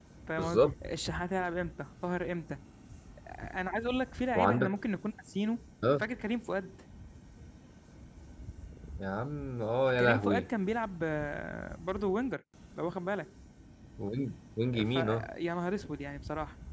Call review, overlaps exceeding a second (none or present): none